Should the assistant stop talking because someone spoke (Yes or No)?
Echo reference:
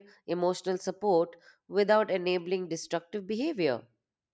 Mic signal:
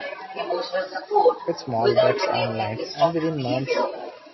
Yes